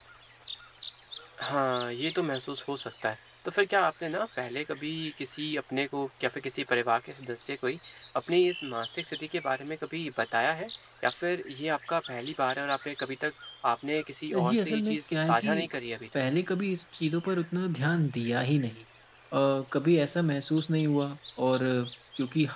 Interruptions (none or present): present